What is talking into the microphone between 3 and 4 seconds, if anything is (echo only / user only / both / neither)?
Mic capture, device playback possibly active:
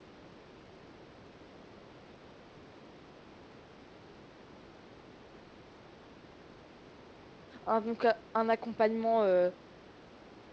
neither